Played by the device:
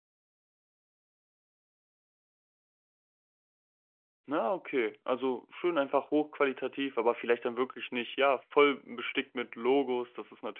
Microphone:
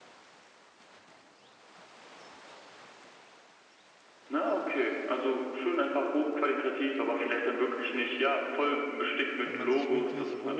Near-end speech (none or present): present